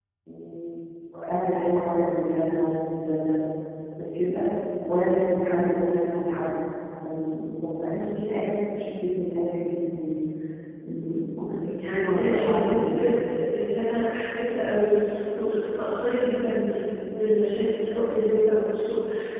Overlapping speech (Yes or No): Yes